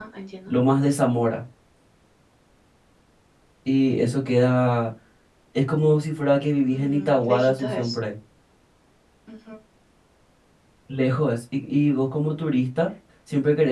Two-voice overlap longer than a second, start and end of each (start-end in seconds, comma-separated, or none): 6.7-8.0